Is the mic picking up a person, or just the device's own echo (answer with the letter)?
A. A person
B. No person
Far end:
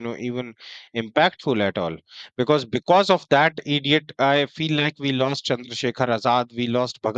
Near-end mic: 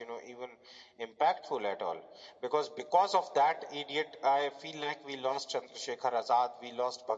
B